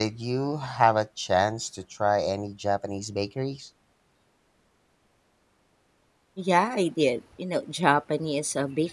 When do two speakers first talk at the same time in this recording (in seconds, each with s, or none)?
none